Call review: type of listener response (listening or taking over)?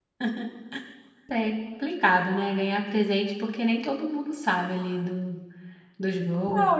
taking over